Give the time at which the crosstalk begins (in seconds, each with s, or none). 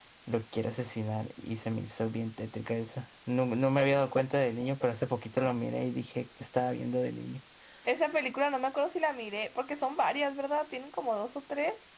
none